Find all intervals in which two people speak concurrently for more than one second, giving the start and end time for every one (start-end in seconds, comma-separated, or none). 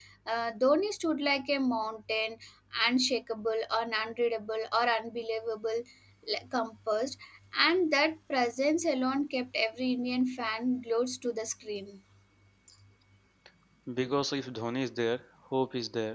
none